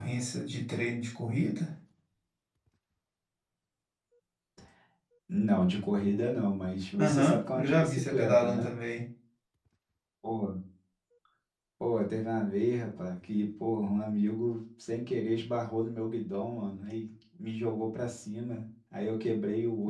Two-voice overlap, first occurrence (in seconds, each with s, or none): 7.0 s